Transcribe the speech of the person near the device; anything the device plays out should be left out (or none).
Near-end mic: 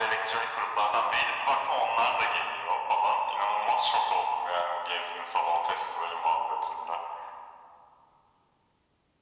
none